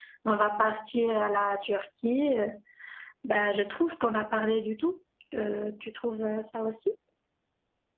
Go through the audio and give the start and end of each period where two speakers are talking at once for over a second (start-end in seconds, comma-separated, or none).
none